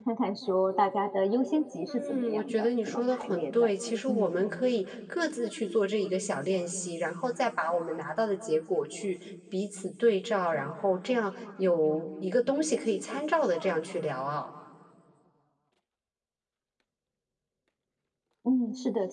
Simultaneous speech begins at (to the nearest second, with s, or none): 2 s